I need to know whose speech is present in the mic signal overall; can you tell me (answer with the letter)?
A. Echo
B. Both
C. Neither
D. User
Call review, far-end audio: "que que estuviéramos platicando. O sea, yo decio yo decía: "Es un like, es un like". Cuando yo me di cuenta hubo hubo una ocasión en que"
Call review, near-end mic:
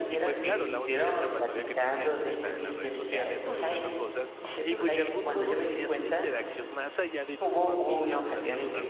B